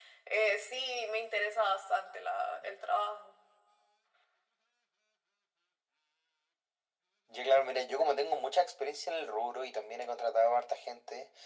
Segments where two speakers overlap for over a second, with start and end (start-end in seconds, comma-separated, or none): none